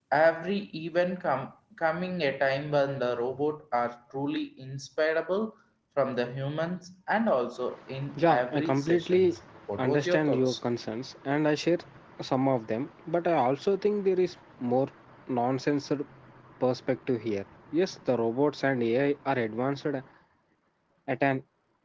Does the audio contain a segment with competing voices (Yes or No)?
Yes